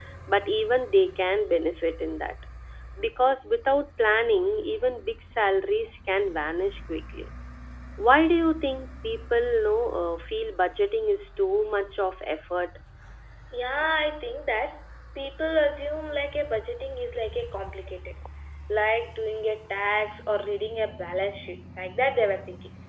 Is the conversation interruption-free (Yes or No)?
Yes